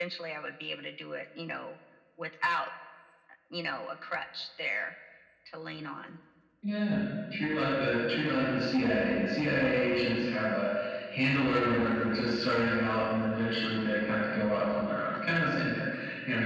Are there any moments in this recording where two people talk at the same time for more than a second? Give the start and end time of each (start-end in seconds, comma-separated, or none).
none